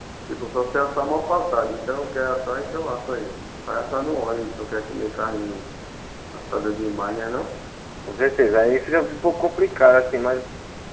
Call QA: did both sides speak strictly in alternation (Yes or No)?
Yes